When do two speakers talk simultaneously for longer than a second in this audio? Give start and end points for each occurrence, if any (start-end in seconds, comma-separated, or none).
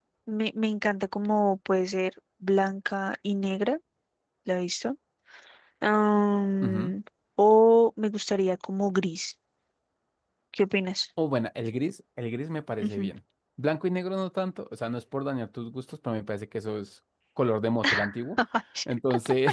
none